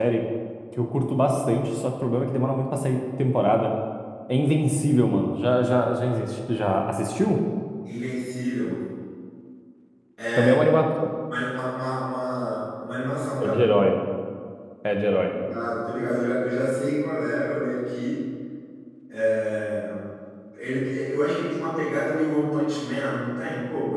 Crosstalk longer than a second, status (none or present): none